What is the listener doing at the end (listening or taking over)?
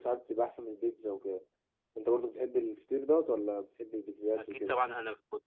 taking over